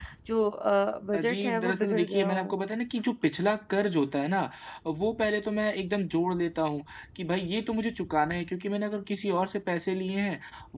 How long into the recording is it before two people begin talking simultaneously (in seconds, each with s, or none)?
1.2 s